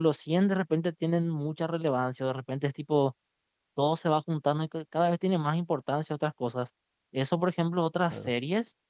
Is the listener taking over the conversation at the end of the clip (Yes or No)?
No